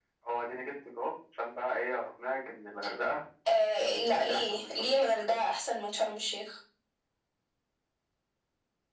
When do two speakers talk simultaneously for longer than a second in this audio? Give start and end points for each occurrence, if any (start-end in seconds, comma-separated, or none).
3.8-5.2